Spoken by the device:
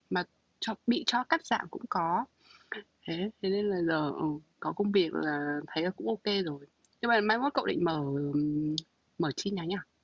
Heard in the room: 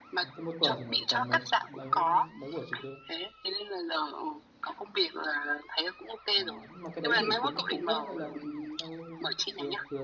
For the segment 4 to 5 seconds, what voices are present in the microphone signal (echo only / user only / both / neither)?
echo only